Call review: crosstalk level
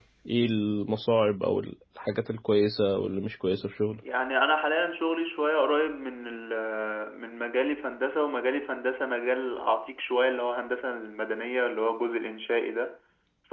none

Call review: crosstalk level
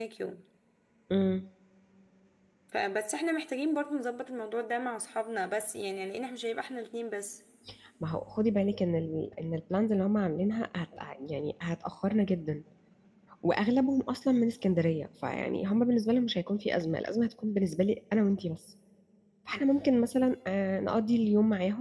none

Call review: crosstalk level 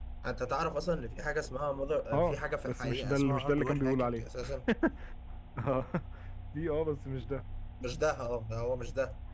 present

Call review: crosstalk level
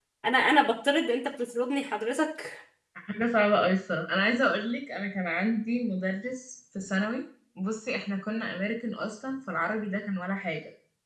none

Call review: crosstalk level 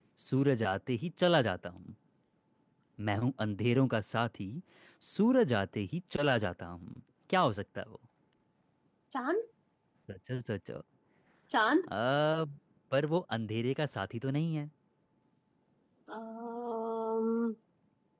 none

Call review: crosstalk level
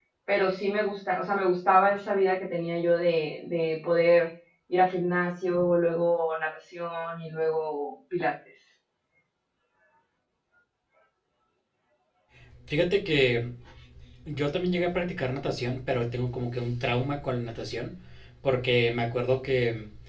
none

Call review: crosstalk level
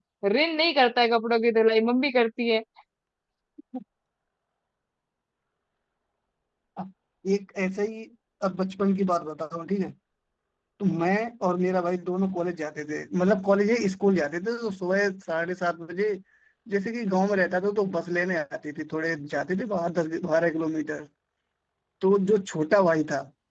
none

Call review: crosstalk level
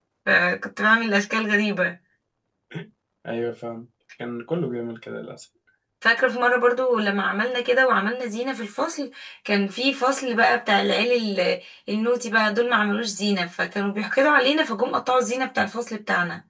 none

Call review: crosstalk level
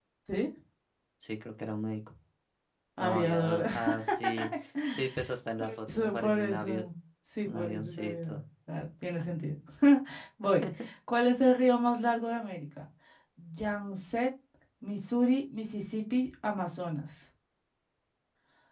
present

